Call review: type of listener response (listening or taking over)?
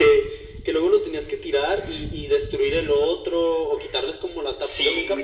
taking over